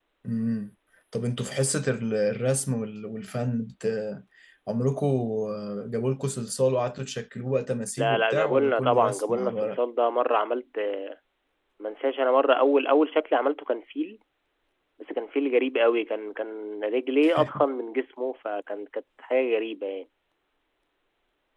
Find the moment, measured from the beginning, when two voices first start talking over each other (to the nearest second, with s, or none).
8 s